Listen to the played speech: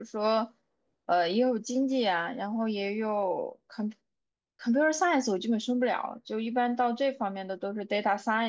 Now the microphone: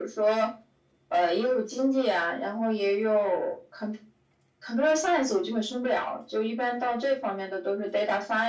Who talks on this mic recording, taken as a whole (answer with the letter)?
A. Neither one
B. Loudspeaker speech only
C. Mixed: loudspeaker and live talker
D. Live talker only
B